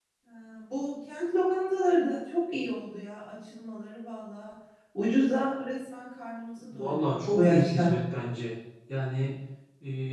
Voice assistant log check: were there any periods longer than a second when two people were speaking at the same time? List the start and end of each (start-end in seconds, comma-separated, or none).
6.7-7.9